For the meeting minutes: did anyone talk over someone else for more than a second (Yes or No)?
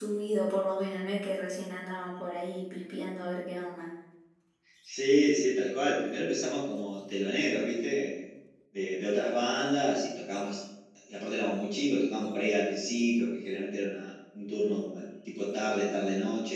No